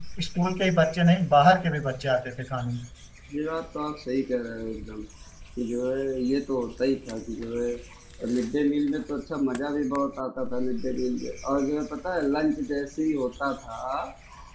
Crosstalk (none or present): none